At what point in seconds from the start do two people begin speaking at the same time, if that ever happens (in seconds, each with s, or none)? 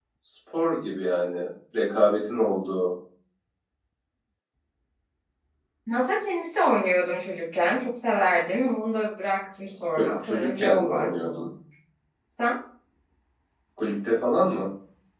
10.0 s